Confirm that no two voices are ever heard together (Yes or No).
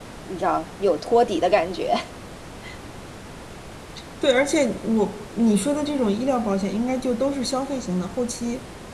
Yes